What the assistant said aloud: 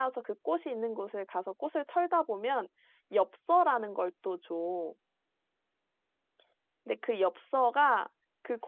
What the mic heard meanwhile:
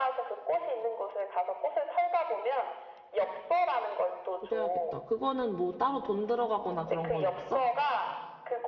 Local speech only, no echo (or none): 그래야겠다. 그거는 뭐 따로 돈 들어가거나 그런 건 없어?